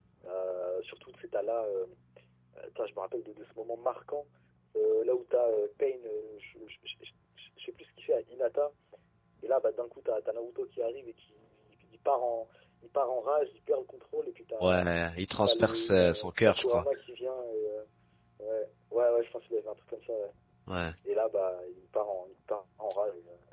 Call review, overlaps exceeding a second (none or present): present